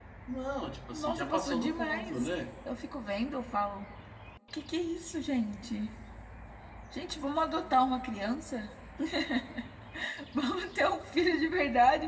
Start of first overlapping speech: 0.9 s

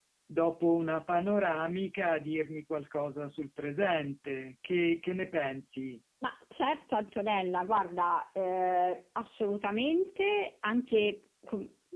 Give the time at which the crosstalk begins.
none

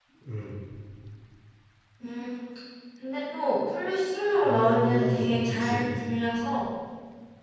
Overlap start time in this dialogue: 4.4 s

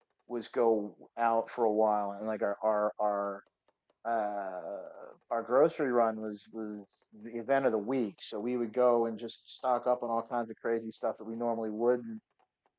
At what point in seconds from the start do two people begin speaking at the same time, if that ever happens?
none

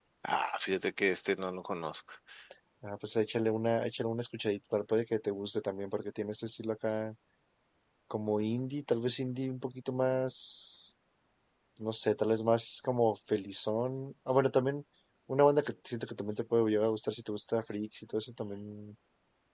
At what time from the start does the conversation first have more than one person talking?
none

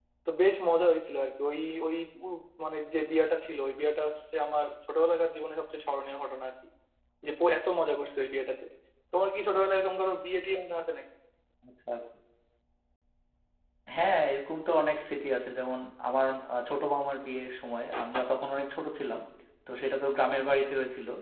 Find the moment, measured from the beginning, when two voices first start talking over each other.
none

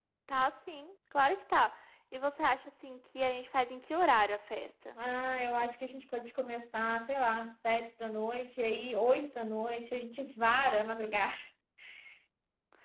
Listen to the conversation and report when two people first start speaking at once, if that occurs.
none

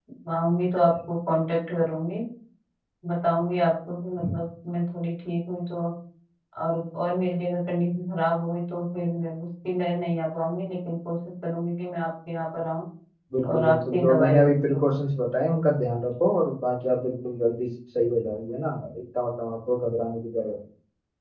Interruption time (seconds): 13.5 s

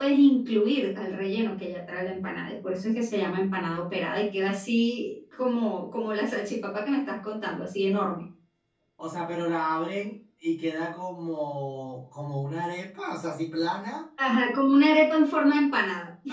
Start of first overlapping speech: none

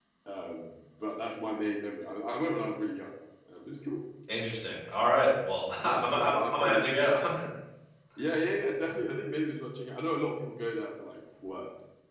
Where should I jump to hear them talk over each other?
5.8 s

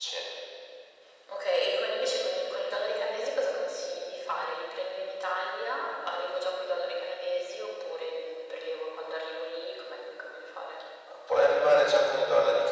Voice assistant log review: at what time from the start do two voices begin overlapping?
none

